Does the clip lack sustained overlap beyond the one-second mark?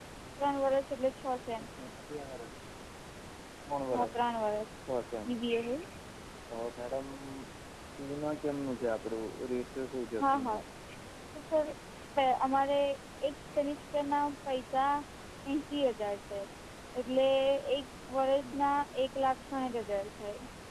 Yes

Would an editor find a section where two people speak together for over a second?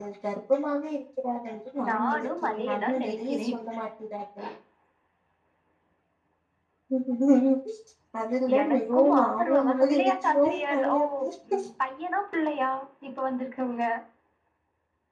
Yes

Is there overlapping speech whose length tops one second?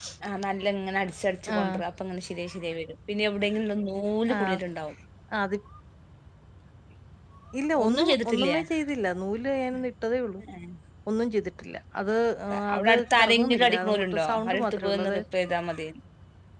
Yes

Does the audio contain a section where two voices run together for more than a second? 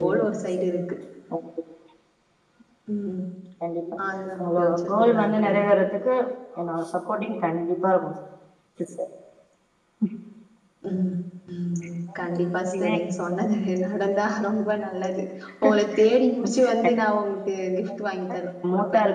Yes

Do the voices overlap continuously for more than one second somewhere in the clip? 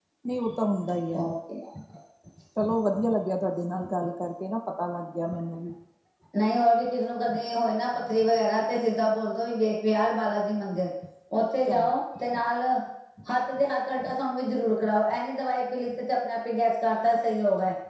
No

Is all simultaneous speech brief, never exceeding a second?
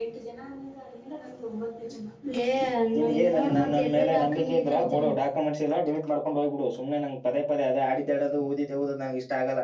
No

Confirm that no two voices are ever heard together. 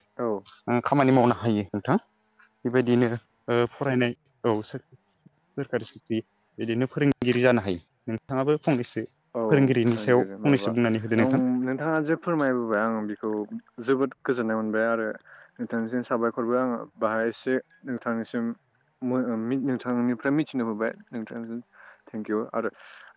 No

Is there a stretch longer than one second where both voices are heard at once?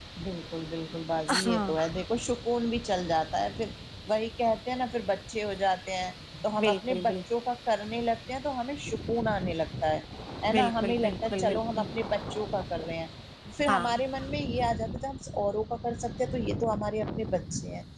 Yes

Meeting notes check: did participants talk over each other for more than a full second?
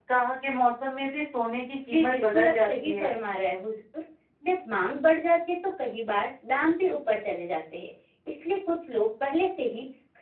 Yes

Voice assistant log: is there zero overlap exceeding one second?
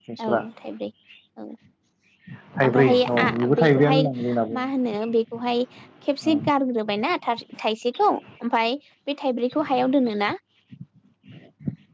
No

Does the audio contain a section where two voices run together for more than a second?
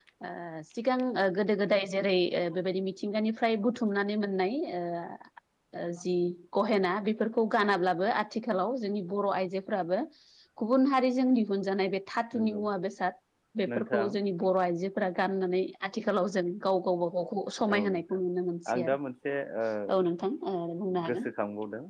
No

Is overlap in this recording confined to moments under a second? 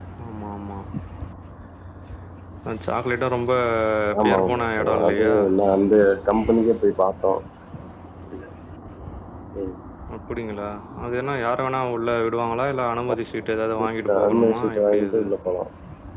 No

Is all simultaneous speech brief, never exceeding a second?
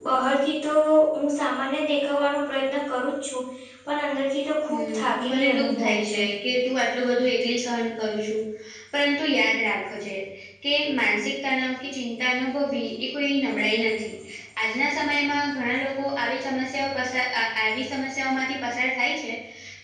No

